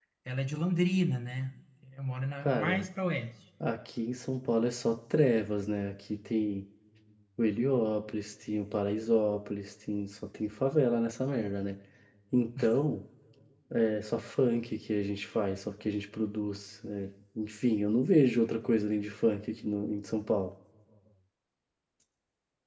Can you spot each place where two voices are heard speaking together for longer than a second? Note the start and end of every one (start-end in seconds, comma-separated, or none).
none